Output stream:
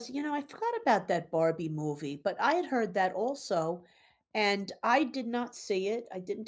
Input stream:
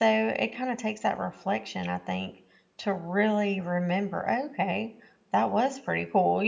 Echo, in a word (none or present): none